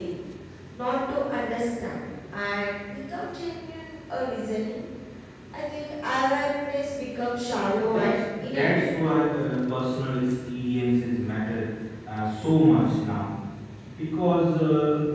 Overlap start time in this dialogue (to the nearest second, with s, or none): 8 s